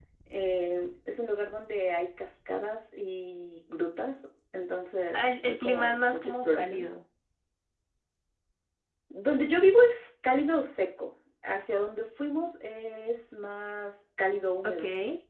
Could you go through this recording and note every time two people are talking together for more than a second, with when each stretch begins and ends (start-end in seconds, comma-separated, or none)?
5.1-6.8